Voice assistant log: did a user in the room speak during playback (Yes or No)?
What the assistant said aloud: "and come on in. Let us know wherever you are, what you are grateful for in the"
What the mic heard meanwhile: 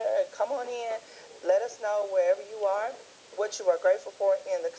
No